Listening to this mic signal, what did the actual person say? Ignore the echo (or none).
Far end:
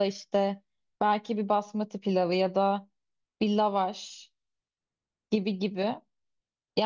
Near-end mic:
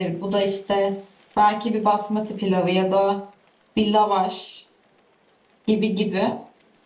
none